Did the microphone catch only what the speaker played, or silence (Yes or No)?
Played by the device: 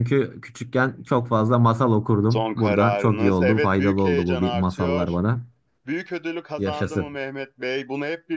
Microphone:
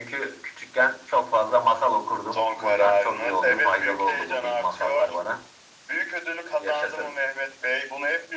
Yes